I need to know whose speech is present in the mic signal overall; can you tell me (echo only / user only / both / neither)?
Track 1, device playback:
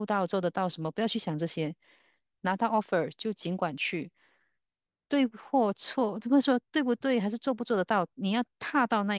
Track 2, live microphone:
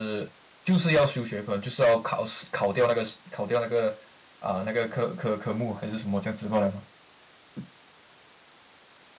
user only